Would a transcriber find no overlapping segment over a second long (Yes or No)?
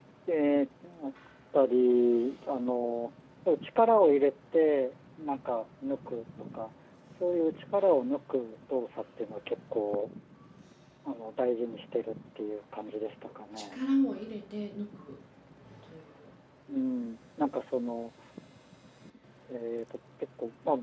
Yes